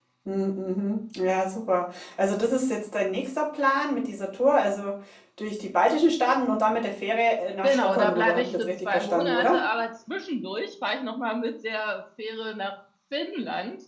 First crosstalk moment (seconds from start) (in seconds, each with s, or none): 7.6 s